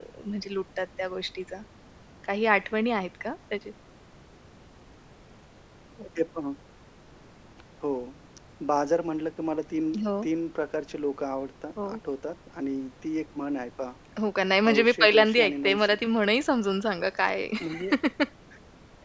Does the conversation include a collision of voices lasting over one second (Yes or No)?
Yes